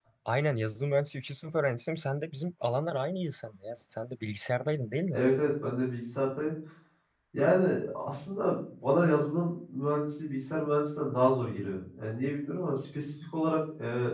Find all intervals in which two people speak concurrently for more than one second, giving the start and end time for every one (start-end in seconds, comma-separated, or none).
none